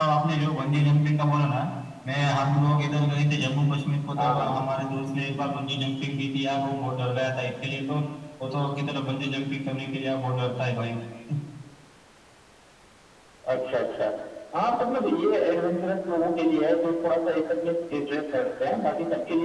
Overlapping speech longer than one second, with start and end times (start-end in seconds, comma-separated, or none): none